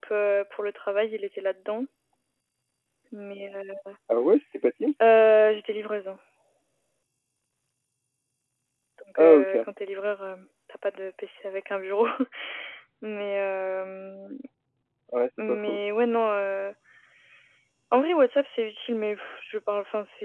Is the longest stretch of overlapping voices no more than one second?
Yes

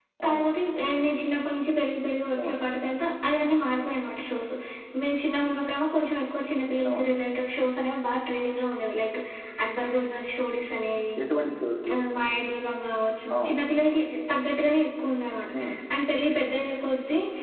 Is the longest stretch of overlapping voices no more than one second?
Yes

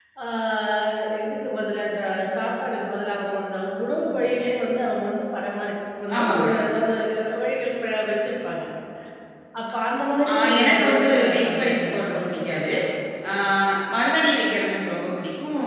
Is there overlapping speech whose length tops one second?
Yes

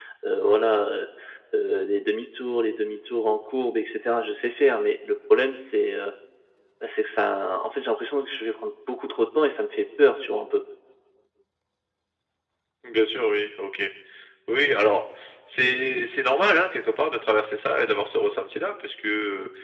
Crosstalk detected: No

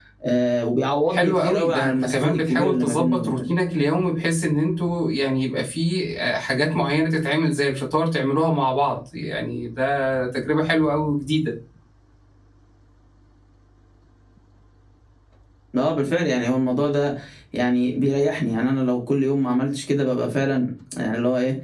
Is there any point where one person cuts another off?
Yes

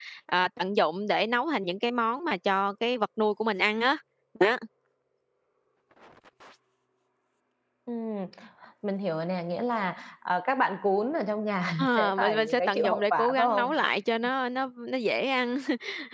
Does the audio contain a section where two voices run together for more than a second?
Yes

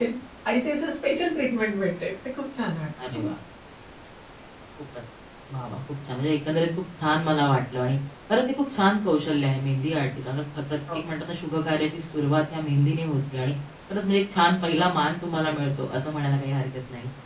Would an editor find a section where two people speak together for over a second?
No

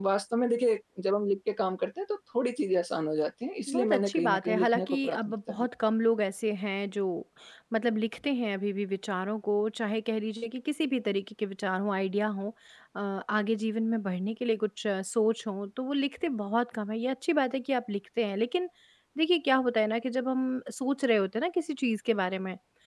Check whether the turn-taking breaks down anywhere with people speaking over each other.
Yes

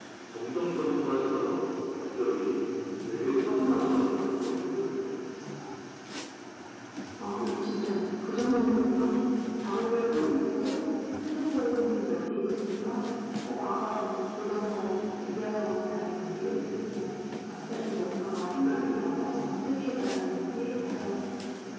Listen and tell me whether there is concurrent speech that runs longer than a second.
No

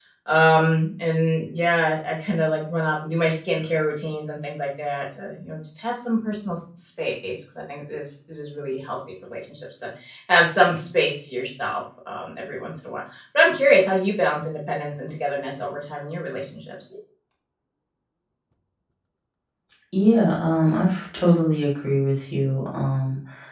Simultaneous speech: No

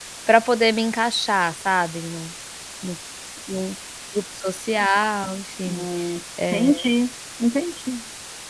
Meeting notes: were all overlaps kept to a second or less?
Yes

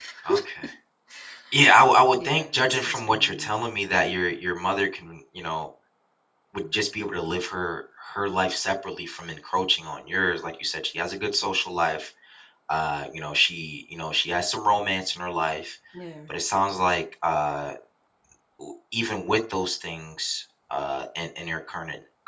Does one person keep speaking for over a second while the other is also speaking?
Yes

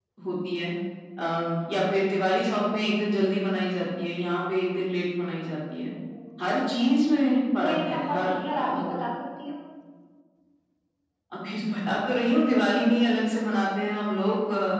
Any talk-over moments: Yes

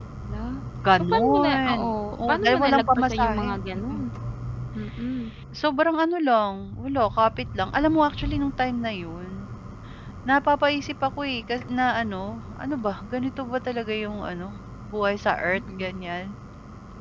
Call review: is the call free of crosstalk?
No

